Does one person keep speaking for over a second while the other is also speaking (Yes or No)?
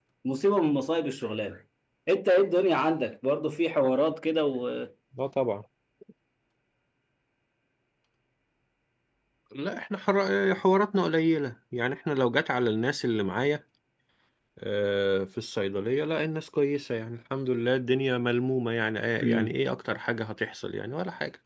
No